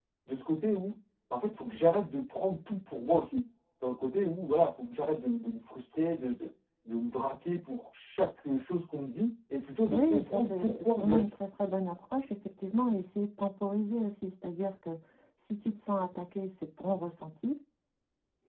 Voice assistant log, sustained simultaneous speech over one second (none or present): present